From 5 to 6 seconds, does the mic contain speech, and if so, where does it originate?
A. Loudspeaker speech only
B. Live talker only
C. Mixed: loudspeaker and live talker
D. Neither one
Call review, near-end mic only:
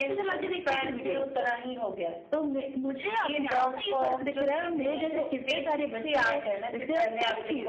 C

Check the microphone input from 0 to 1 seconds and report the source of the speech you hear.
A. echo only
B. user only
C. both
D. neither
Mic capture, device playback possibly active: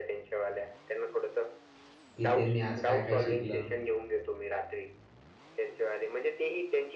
A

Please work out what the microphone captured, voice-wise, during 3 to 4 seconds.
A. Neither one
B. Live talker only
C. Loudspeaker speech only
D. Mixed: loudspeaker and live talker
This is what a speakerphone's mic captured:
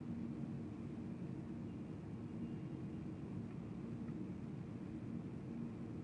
A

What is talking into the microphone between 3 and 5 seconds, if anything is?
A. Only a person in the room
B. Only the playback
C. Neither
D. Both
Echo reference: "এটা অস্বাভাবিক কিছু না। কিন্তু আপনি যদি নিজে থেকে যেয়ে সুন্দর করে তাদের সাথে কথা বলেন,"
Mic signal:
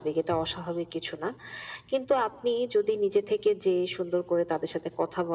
B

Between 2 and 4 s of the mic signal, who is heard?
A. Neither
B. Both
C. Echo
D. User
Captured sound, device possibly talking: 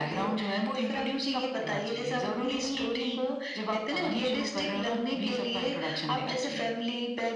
C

